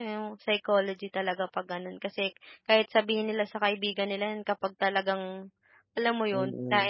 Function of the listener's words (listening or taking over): taking over